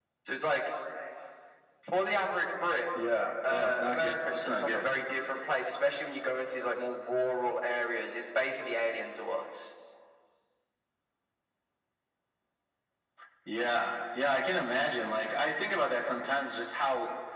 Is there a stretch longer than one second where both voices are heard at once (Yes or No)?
Yes